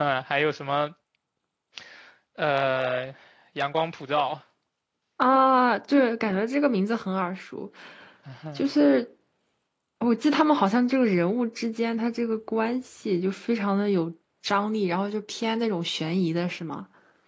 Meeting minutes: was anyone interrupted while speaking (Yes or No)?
No